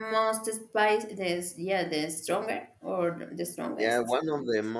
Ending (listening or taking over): taking over